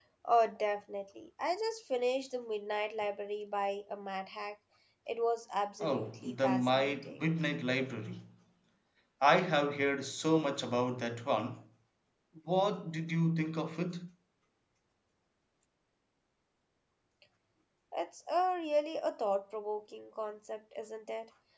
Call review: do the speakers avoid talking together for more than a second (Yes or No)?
No